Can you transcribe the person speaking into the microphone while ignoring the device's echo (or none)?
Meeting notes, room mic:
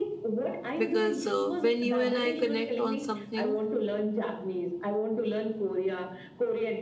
because uh, when you and I connect on something,